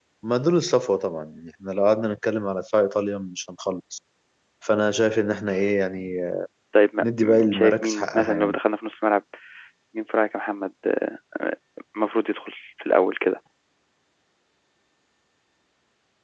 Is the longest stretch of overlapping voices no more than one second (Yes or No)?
No